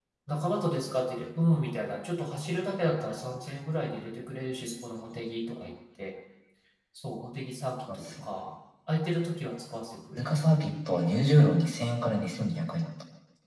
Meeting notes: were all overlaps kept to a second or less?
Yes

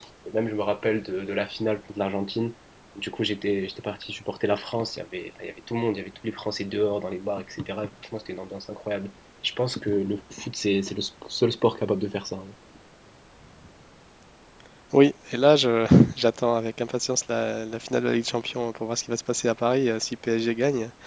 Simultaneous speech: No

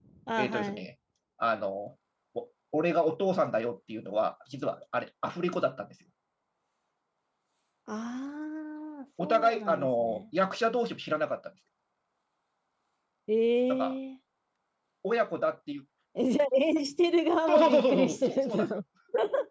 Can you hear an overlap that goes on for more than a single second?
Yes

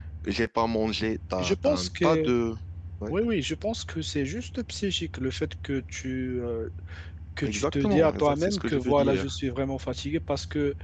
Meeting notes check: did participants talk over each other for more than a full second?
Yes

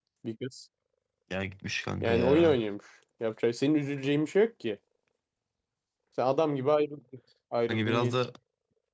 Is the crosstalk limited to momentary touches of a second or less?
Yes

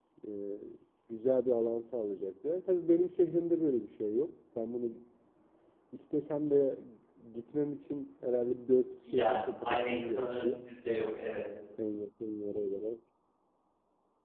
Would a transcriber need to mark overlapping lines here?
Yes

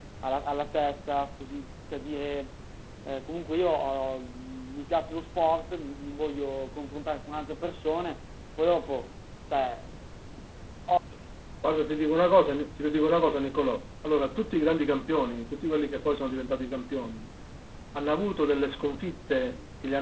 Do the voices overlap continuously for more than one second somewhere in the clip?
No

